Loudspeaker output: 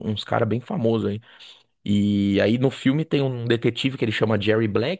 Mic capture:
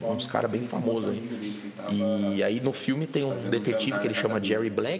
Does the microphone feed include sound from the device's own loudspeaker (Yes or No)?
Yes